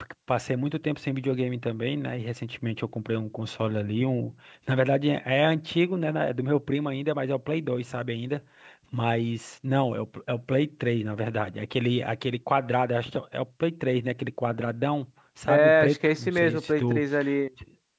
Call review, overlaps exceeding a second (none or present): present